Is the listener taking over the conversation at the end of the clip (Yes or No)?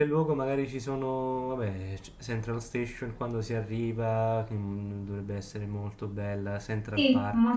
Yes